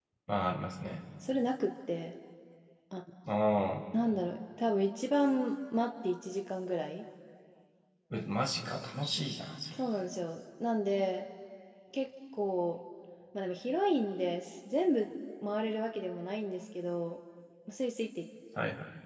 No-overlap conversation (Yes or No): Yes